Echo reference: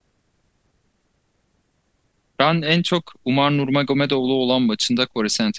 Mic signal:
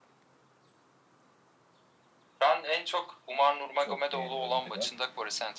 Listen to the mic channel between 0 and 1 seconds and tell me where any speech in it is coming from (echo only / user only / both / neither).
neither